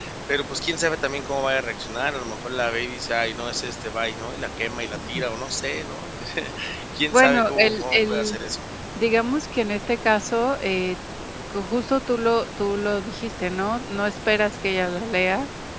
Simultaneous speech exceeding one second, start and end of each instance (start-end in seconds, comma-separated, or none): 7.0-8.4